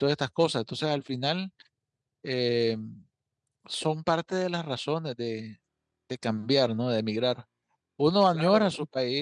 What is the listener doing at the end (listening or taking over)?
listening